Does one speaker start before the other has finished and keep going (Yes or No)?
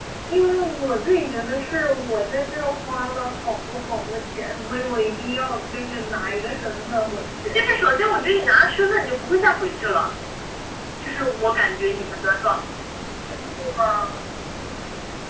No